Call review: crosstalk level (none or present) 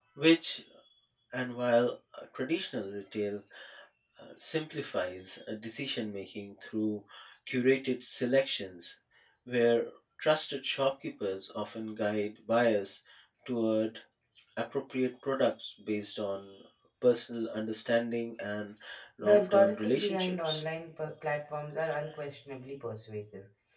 present